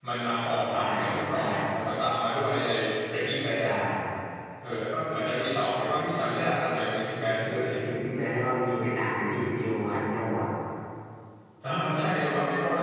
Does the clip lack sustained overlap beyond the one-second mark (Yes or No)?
Yes